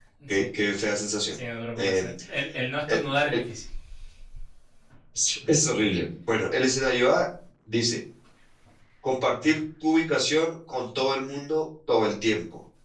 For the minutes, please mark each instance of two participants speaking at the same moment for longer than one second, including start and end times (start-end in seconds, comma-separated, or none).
none